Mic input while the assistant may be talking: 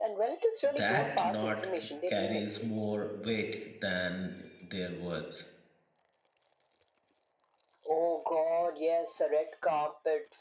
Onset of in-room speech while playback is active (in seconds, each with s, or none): 0.8 s